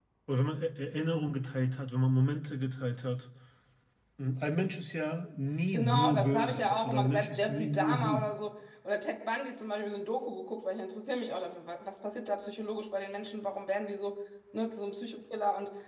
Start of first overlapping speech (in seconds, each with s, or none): 5.7 s